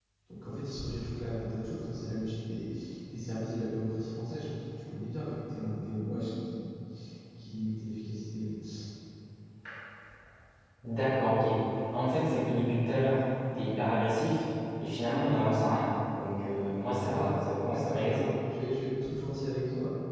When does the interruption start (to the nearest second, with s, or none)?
17 s